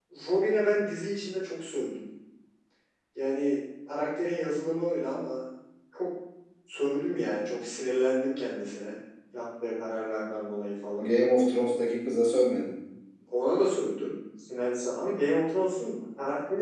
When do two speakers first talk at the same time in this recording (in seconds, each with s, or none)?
none